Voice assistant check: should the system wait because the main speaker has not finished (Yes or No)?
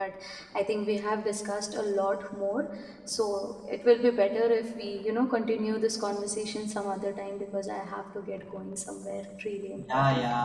No